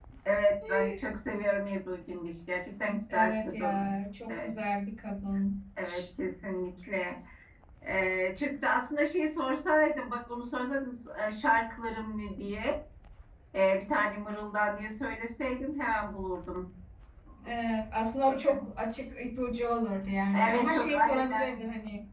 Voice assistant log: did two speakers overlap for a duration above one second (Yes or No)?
Yes